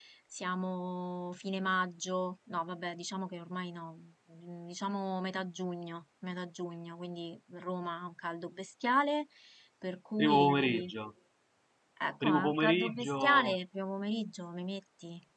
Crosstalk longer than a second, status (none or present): present